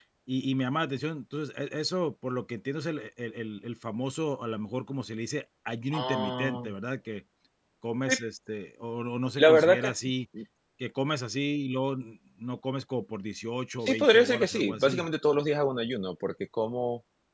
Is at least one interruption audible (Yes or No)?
Yes